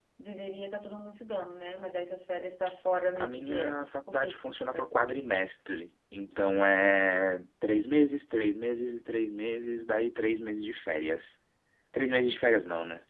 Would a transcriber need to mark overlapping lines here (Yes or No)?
Yes